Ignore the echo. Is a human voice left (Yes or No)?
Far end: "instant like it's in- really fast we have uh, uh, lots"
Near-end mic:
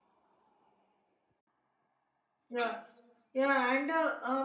Yes